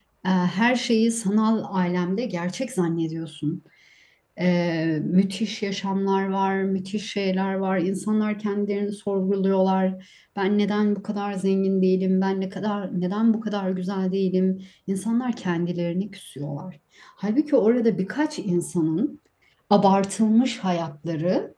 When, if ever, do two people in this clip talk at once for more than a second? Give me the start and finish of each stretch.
none

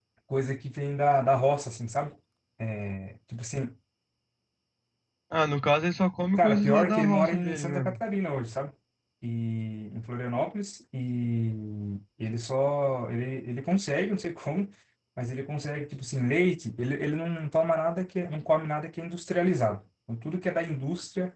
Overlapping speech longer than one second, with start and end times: 6.4-8.0

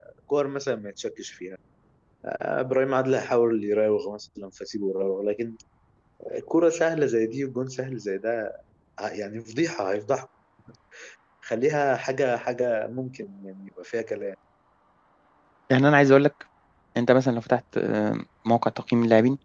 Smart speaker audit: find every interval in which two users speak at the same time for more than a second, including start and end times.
none

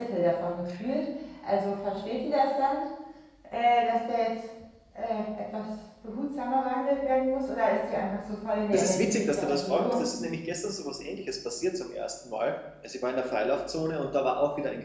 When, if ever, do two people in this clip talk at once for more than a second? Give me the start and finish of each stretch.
8.7-10.1

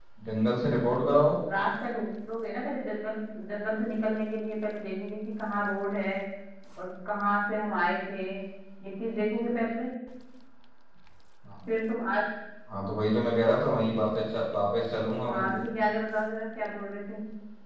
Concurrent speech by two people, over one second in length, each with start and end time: none

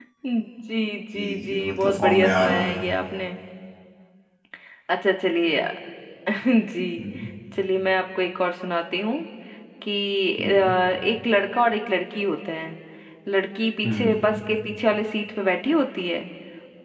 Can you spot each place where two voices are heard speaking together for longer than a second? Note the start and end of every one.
1.2-2.7

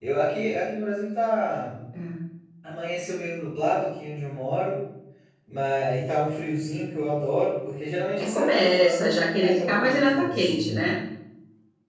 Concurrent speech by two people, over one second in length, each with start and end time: 8.2-10.9

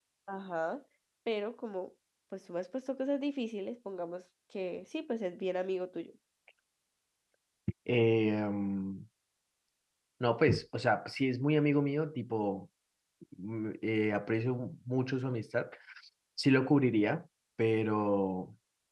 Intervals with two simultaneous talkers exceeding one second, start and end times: none

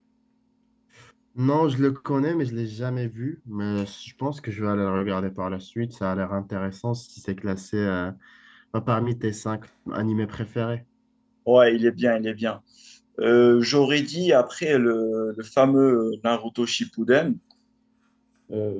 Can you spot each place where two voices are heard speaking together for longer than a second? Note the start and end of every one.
none

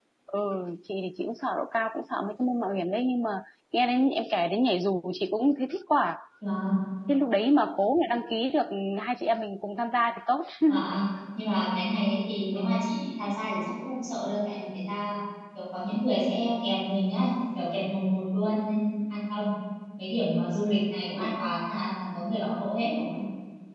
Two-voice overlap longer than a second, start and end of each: none

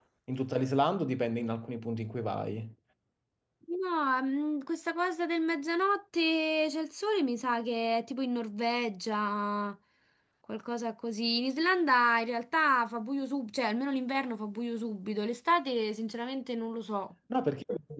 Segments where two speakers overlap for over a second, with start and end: none

